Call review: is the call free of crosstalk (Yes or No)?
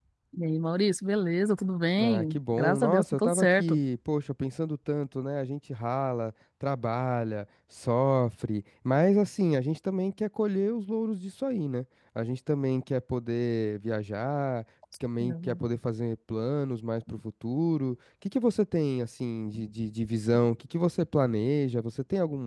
No